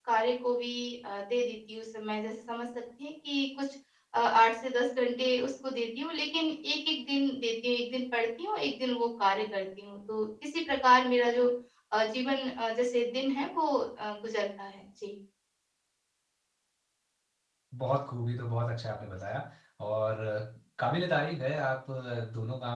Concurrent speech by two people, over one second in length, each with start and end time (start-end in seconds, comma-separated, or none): none